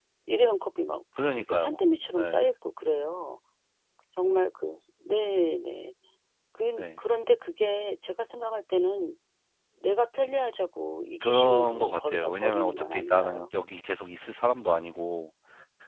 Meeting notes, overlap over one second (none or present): present